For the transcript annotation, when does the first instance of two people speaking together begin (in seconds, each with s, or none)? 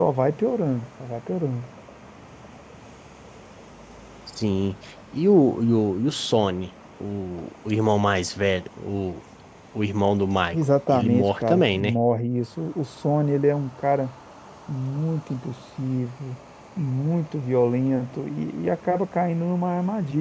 10.5 s